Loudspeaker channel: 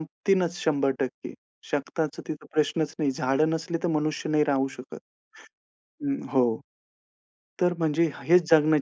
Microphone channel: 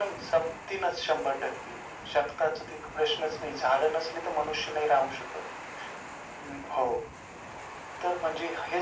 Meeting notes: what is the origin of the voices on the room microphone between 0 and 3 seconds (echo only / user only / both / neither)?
echo only